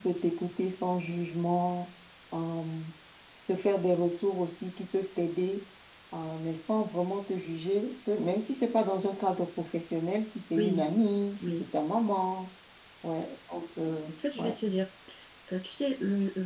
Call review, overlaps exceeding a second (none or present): none